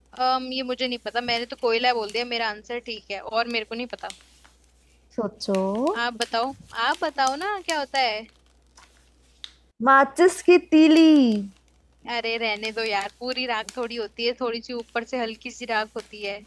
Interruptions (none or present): none